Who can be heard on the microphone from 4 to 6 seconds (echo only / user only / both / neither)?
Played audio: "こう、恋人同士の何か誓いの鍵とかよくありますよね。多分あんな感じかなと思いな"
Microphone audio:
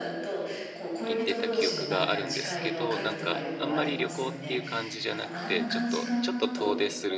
both